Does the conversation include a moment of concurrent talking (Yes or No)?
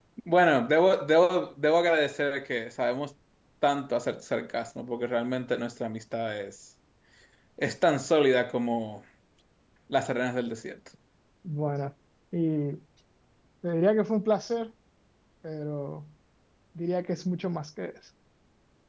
No